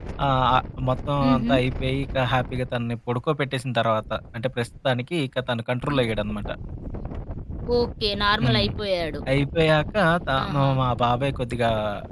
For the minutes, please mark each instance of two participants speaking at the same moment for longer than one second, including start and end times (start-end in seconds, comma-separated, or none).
none